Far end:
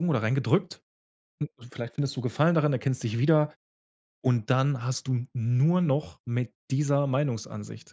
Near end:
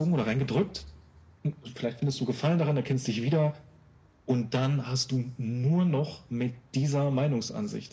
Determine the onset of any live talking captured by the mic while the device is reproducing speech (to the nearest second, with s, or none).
none